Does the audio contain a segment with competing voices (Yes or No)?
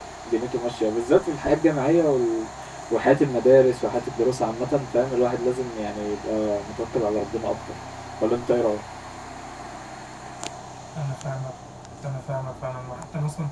No